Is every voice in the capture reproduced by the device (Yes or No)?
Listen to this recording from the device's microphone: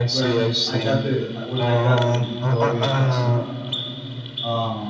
No